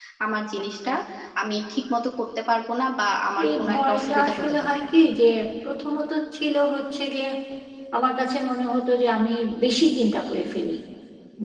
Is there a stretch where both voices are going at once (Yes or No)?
Yes